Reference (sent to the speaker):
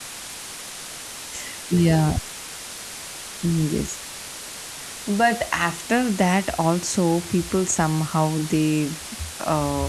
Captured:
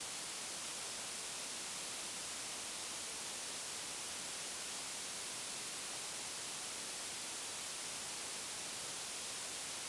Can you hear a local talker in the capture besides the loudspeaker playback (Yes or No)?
No